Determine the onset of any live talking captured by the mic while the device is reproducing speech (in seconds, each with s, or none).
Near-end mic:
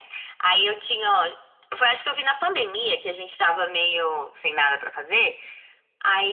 none